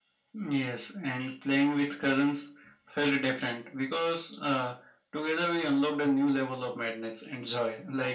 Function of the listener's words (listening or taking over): listening